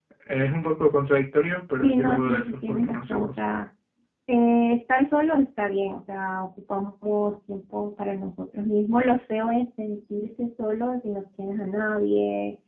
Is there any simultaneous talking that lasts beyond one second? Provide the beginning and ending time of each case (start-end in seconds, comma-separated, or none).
1.8-3.4